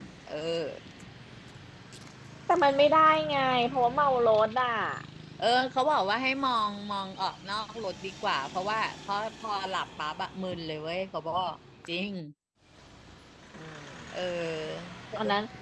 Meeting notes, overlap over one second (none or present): none